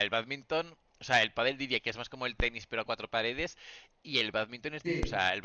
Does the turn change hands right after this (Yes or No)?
No